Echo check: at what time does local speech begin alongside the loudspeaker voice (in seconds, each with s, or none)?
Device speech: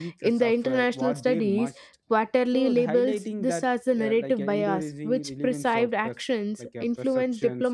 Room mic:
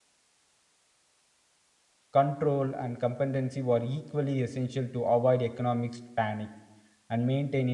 2.1 s